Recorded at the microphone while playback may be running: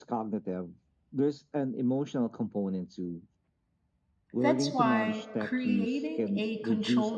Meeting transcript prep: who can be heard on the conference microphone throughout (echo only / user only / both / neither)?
both